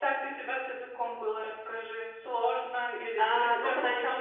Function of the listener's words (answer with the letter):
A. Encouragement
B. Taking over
B